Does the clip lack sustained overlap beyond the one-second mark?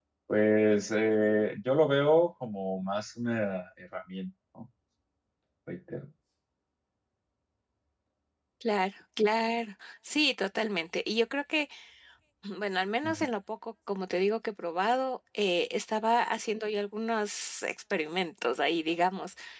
Yes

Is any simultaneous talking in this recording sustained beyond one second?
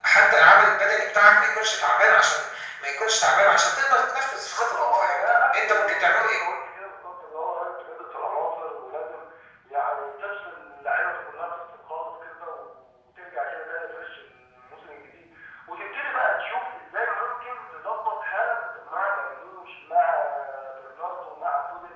Yes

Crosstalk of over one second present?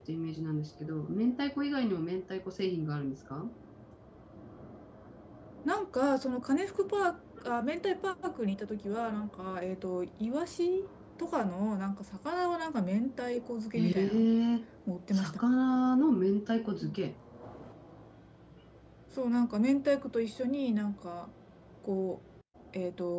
No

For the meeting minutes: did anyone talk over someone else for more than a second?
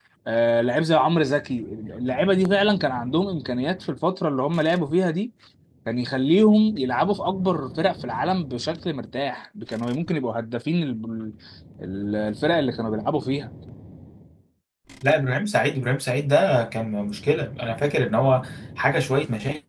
No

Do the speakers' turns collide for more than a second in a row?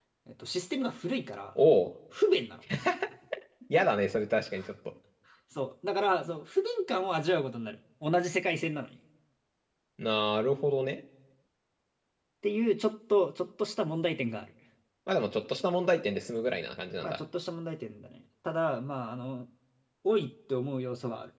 No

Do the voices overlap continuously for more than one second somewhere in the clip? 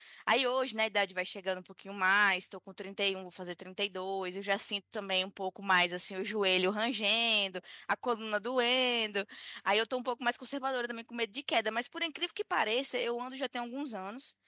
No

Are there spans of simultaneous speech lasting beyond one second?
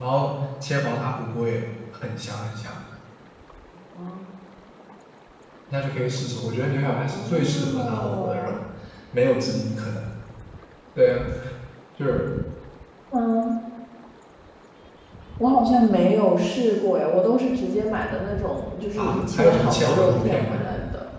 Yes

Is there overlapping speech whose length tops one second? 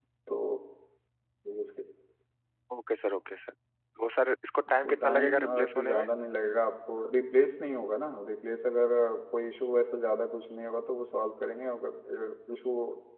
Yes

